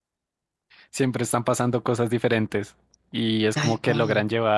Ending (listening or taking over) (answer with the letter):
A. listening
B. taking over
A